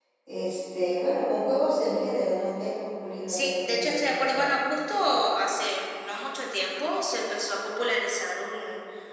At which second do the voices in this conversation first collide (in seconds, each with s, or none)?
3.3 s